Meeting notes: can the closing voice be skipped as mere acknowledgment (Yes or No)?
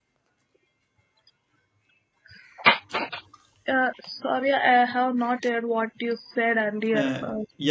No